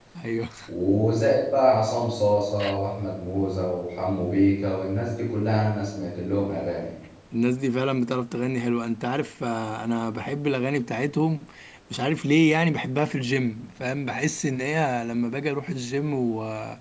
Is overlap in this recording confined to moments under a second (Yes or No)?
Yes